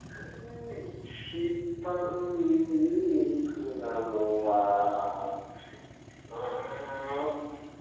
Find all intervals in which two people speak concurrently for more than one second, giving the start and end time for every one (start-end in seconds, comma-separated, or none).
none